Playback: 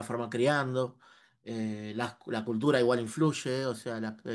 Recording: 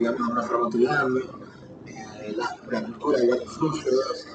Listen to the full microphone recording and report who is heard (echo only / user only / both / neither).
echo only